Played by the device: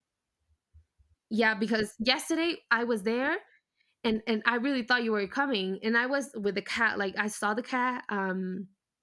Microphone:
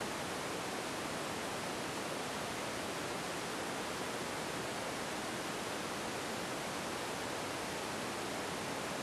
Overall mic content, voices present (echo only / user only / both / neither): neither